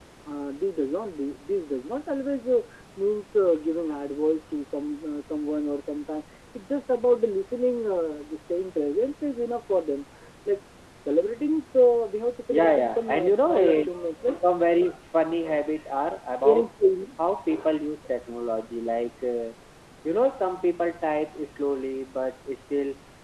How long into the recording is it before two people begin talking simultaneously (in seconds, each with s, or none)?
12.5 s